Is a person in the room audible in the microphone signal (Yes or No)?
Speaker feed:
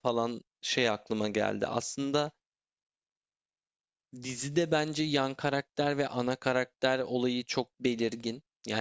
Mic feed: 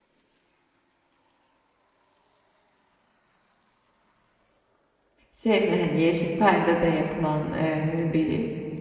Yes